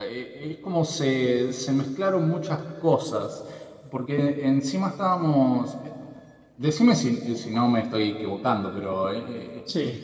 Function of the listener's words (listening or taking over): listening